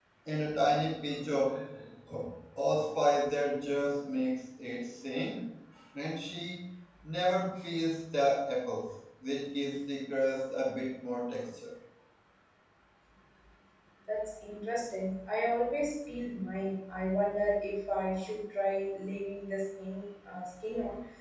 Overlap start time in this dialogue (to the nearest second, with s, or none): none